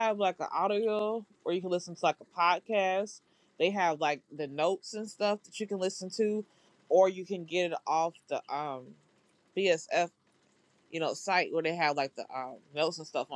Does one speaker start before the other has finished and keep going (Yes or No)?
No